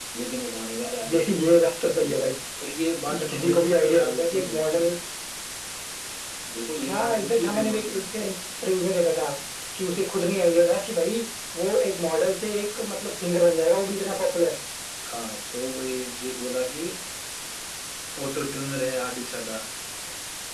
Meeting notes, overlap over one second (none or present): present